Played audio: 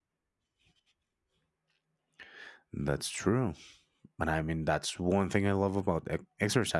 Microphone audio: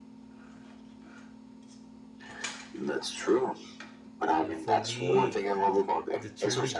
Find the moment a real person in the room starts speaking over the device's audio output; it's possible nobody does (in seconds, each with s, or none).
4.4 s